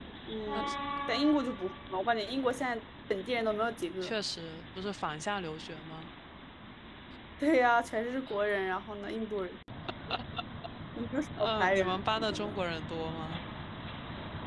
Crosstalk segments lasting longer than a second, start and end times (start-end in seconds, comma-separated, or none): 11.4-12.6